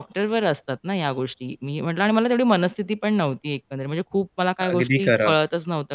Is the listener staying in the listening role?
Yes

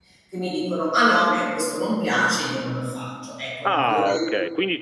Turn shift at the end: Yes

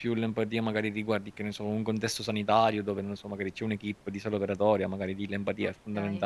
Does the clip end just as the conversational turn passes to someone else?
Yes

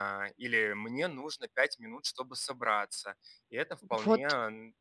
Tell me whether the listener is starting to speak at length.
No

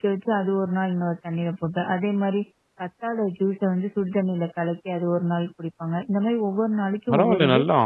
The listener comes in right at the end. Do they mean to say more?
Yes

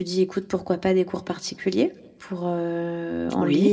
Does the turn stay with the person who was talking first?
Yes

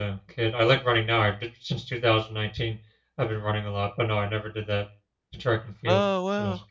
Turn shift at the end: Yes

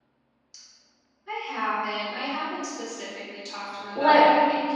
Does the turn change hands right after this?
No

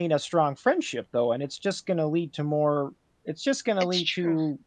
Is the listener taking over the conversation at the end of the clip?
No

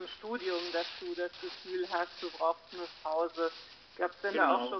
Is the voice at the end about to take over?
No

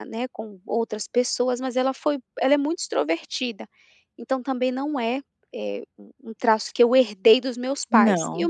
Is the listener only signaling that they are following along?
Yes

